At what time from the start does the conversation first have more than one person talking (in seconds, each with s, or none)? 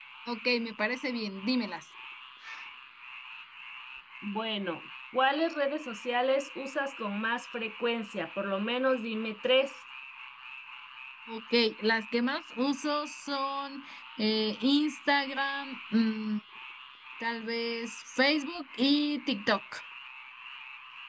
none